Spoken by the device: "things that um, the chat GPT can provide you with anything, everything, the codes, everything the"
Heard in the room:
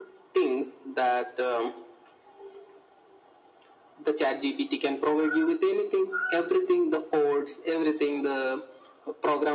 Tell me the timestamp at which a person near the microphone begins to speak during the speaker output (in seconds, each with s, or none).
none